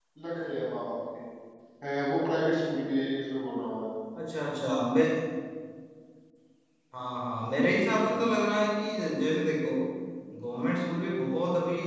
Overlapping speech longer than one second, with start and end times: none

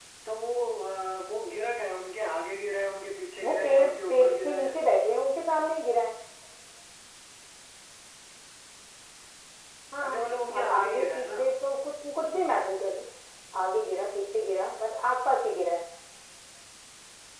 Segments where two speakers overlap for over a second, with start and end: 3.4-4.7, 10.1-11.4

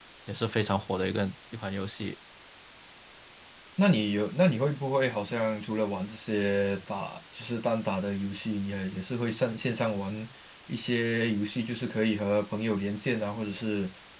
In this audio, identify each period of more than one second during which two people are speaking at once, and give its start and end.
none

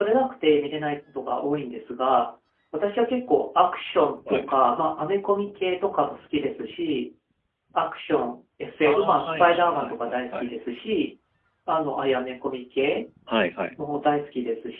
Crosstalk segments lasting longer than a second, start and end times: 8.8-10.5

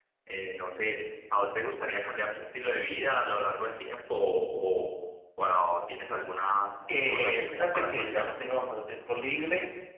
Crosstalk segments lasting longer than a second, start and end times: 7.0-8.3

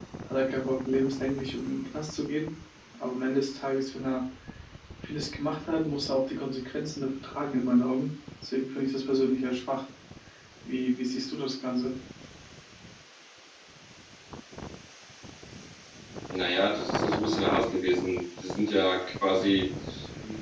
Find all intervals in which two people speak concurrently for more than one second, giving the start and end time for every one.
none

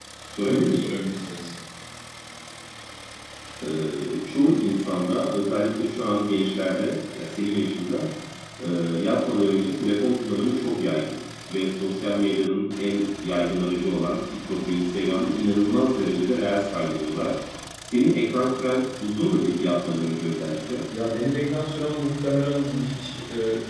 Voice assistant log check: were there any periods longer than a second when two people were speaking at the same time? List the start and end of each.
none

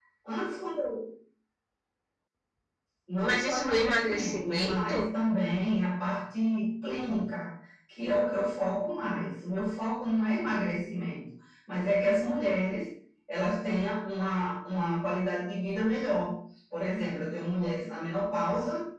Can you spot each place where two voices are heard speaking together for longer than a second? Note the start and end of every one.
3.2-5.1

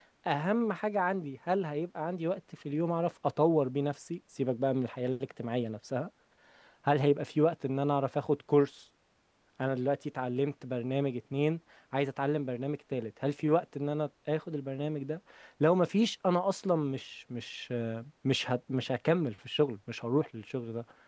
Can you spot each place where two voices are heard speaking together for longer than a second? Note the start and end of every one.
none

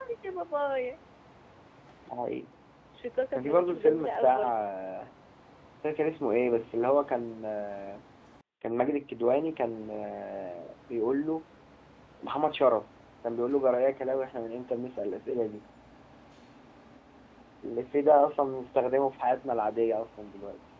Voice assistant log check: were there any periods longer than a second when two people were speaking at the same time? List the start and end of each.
3.3-4.6

